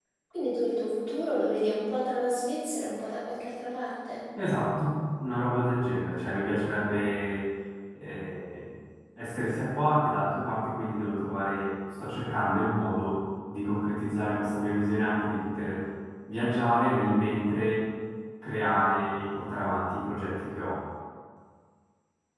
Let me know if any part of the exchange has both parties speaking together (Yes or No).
No